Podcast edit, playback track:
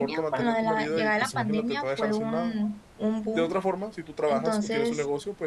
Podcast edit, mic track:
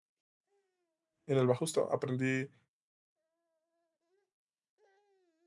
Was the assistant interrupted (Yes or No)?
Yes